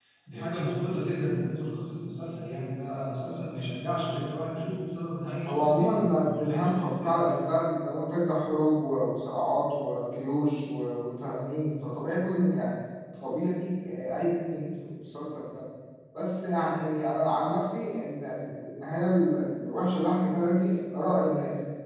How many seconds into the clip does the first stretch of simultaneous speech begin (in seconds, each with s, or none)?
5.5 s